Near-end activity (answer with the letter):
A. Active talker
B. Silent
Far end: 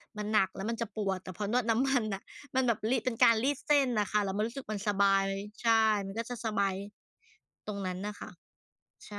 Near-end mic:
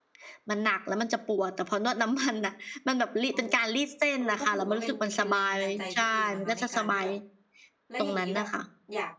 A